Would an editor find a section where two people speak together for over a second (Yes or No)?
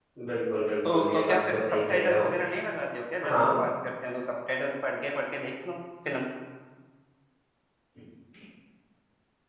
Yes